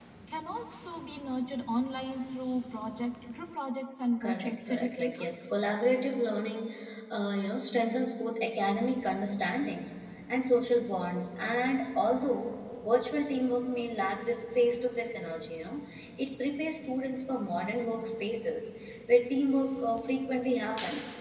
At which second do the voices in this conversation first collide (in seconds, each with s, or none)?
4.2 s